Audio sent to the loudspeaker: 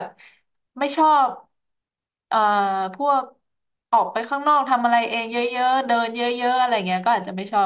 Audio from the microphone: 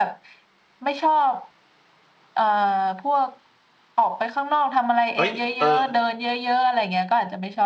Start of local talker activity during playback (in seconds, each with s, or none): 5.1 s